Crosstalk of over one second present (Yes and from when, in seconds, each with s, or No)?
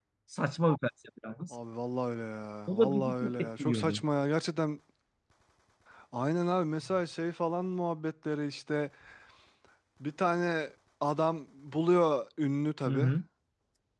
Yes, from 2.7 s